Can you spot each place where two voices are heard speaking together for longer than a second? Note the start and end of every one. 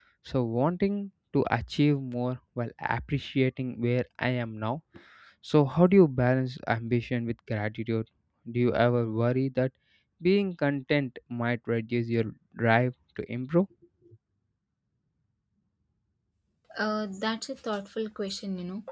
none

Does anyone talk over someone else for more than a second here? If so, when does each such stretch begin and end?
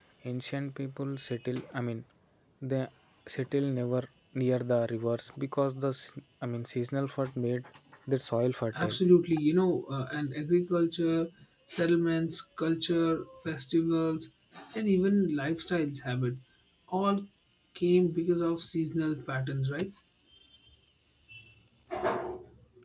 none

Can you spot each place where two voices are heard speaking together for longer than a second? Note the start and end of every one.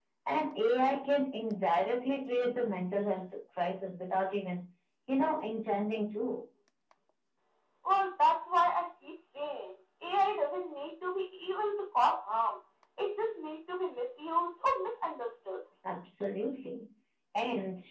none

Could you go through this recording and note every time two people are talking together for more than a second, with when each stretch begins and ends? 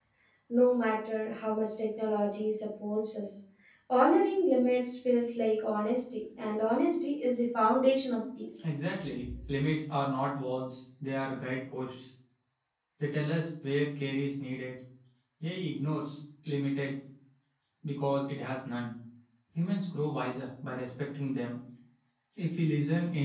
none

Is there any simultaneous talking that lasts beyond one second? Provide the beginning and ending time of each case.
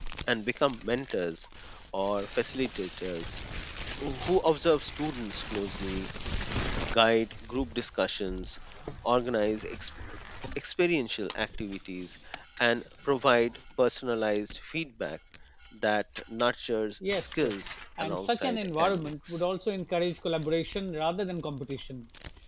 18.0-19.4

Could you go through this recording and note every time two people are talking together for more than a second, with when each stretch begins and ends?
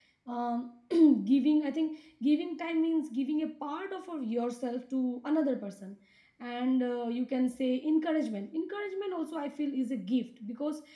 none

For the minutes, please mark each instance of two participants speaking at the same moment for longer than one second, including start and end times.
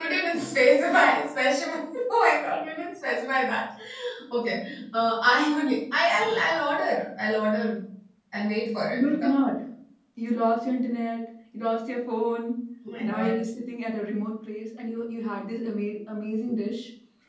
none

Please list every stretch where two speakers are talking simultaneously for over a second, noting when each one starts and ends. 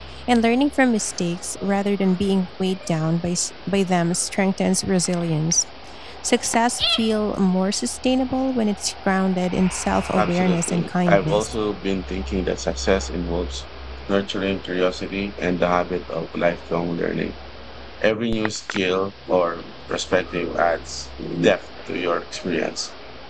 10.2-11.5

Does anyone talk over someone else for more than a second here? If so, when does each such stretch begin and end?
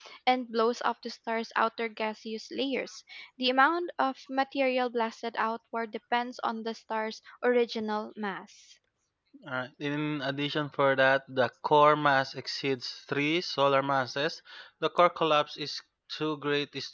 none

